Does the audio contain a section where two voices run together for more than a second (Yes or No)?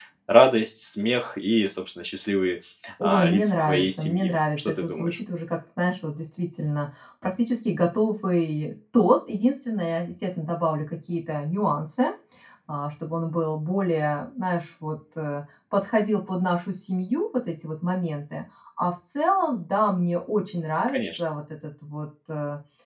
Yes